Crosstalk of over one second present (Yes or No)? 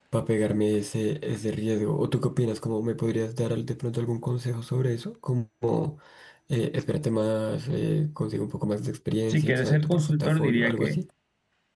Yes